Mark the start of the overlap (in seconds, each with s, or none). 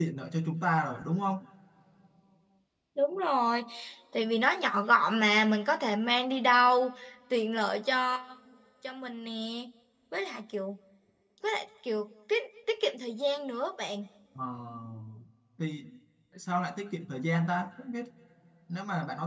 none